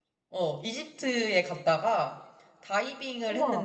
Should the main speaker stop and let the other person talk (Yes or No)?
No